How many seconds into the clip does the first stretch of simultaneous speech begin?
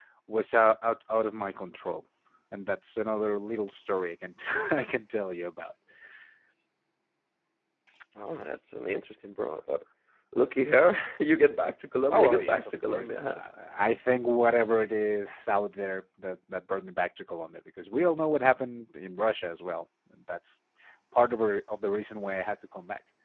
12.1 s

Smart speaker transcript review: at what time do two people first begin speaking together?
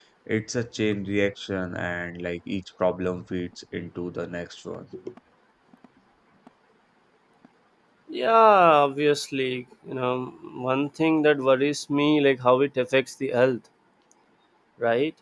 none

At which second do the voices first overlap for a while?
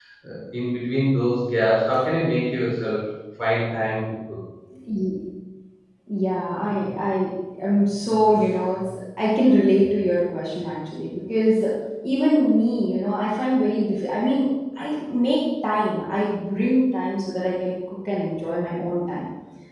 none

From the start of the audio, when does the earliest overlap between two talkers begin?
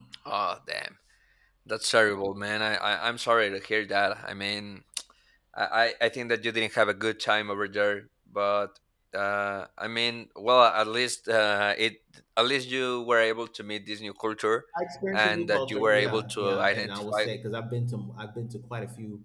15.1 s

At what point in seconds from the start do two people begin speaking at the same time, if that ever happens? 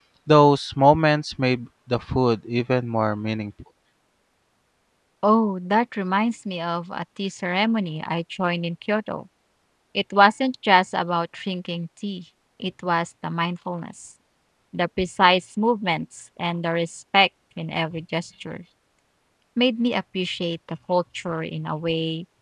none

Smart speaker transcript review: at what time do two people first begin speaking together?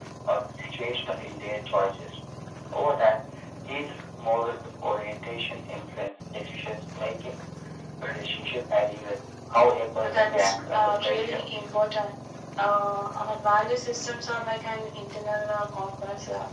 10.0 s

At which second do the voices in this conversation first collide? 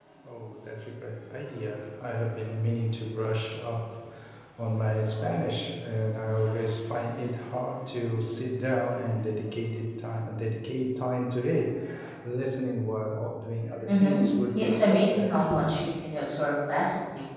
13.9 s

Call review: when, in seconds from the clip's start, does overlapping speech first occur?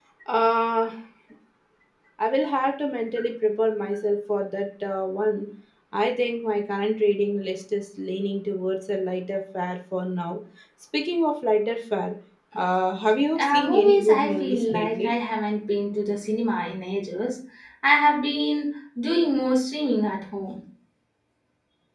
13.4 s

